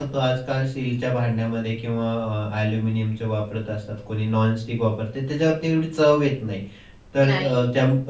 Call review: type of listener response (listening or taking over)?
listening